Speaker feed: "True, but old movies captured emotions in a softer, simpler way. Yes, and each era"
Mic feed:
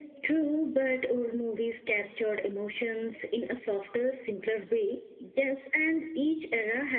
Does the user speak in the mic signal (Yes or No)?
No